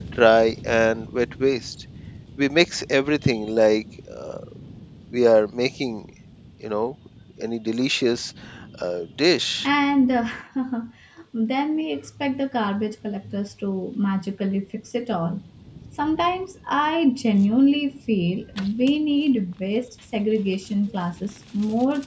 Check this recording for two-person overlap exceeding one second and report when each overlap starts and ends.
none

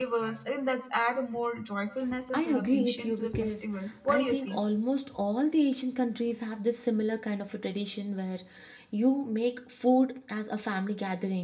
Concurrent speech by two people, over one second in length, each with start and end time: 2.3-3.6

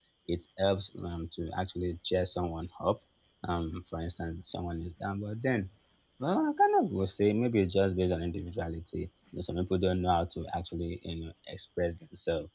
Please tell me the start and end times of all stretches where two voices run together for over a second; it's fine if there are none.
none

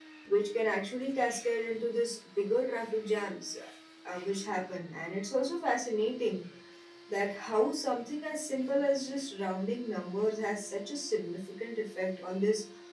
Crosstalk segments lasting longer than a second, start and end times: none

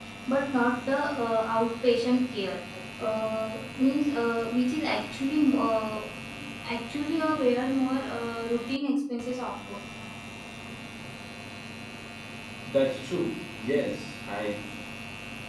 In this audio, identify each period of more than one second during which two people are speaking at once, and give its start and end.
none

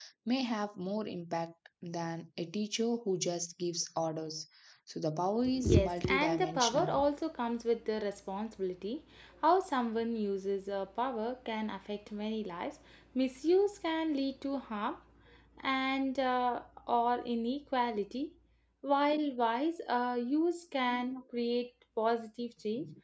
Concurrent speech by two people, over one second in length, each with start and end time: 5.7-6.9

